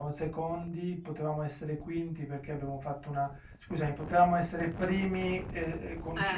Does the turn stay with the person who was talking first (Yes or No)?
Yes